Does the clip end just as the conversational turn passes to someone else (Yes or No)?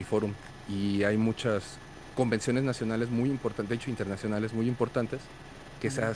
No